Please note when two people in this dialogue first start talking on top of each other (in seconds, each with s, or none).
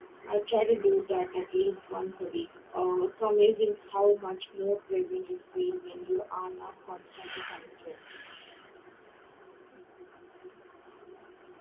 none